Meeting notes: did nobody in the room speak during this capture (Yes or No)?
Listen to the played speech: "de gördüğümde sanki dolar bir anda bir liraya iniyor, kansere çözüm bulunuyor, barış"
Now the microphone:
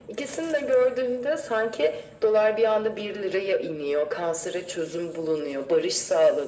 Yes